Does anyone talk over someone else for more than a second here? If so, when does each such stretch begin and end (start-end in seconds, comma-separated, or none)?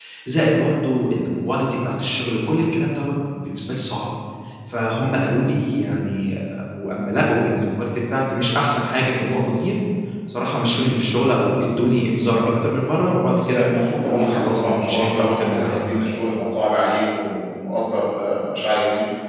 13.5-15.8